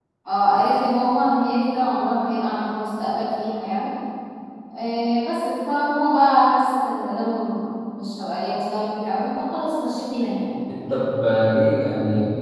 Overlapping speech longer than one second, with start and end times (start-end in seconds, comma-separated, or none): none